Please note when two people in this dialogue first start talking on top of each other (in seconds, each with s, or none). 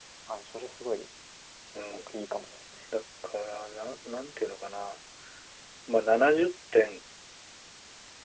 none